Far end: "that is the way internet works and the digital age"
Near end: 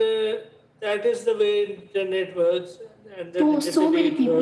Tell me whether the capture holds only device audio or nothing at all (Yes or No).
No